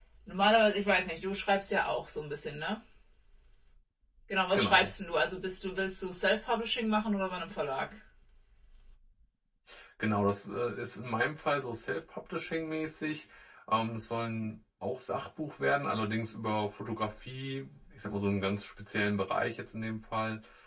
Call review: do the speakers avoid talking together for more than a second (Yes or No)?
Yes